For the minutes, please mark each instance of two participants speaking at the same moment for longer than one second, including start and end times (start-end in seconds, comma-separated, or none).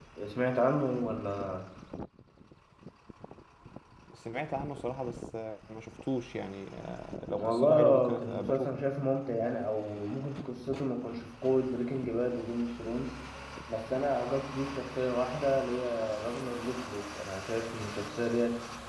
7.3-8.8